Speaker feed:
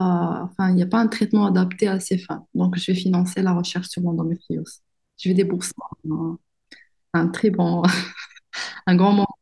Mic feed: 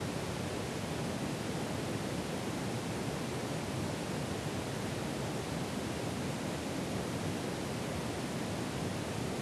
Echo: none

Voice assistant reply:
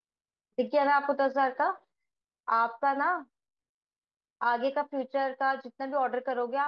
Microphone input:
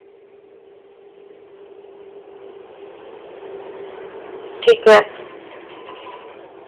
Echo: none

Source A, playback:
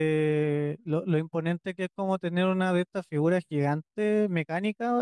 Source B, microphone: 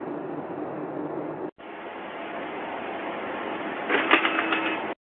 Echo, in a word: none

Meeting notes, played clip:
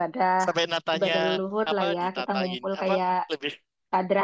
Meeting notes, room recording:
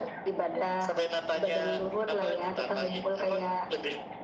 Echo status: present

